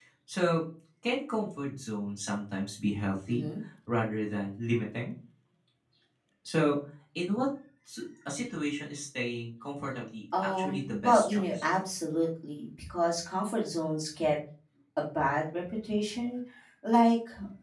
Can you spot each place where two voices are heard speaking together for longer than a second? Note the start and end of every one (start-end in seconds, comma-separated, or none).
10.4-11.6